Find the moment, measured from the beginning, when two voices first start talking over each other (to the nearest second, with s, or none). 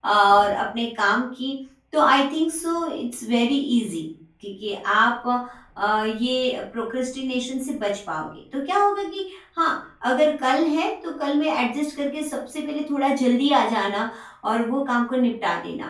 none